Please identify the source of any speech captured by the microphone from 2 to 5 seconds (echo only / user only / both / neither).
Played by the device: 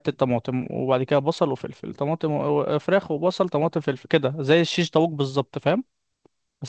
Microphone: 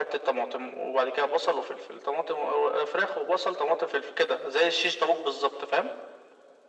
echo only